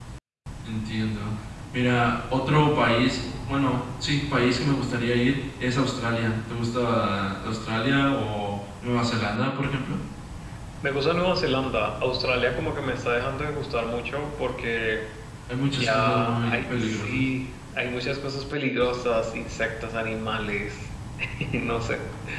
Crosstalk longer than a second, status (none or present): present